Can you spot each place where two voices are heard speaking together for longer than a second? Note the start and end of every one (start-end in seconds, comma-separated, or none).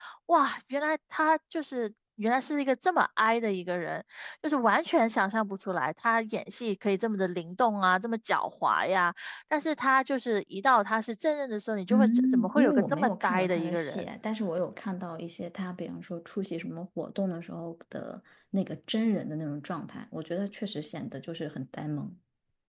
11.9-14.0